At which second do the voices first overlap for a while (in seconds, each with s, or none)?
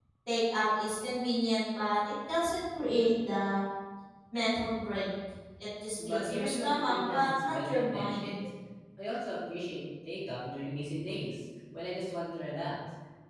6.0 s